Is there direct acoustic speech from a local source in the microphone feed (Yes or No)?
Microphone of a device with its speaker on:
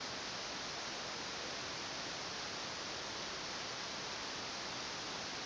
No